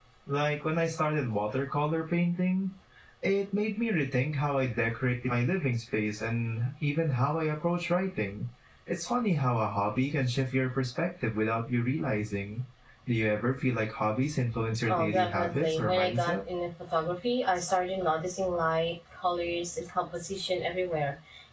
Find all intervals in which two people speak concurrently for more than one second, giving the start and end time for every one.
14.9-16.3

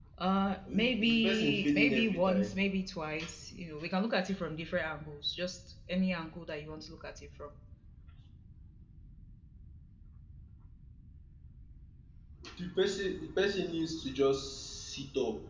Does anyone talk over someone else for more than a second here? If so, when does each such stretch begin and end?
0.7-2.6

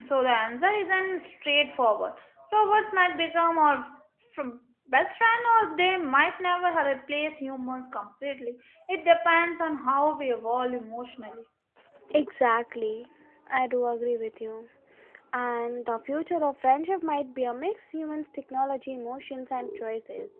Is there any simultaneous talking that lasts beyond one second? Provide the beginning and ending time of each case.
none

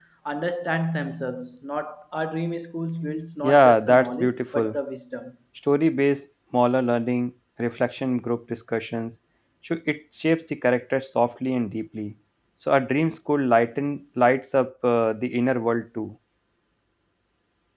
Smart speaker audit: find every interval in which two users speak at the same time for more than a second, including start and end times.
3.4-4.8

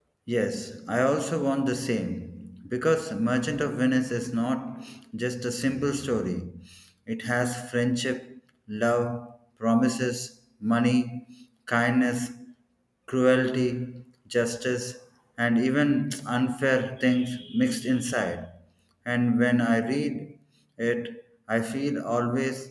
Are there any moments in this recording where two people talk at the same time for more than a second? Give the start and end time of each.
none

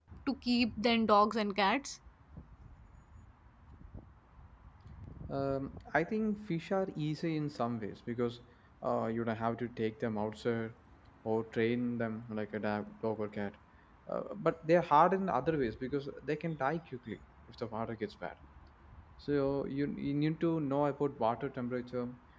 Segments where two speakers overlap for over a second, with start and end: none

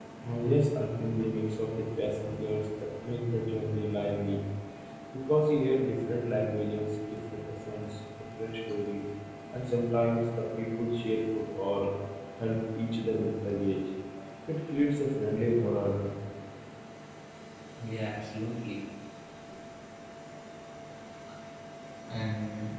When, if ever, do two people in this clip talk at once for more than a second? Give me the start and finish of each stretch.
none

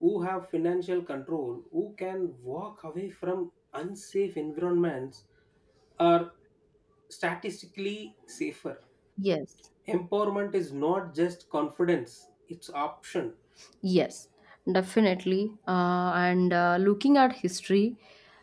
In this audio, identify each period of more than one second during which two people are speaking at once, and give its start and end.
none

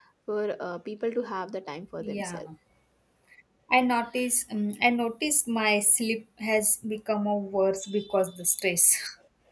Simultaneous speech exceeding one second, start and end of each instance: none

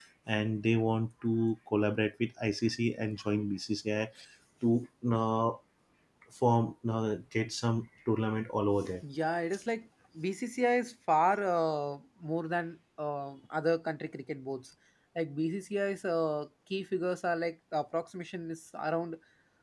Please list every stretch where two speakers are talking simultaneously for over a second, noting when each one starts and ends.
none

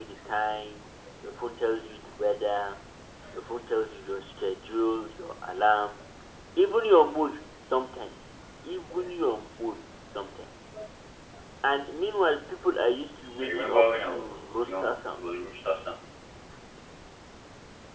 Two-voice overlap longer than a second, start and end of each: 13.4-15.2

